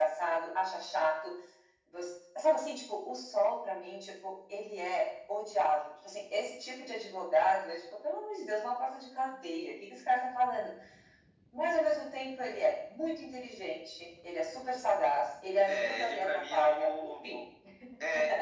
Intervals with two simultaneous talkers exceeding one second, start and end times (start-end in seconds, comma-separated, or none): 15.6-17.4